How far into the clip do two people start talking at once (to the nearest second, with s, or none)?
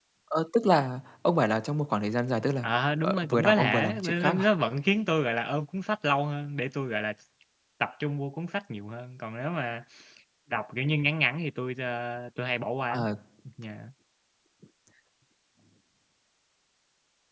3 s